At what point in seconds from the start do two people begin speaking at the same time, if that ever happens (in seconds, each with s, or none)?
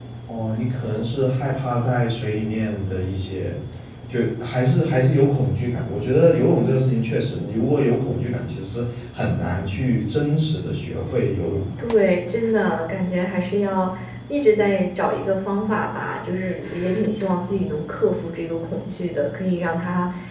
none